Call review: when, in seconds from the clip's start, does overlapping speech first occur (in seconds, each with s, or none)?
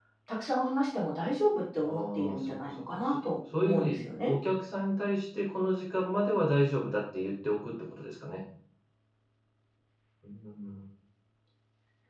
1.8 s